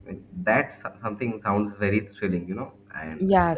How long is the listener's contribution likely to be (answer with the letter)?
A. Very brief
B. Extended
B